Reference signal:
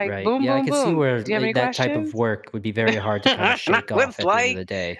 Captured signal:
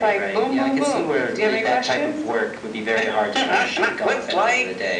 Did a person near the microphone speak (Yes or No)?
No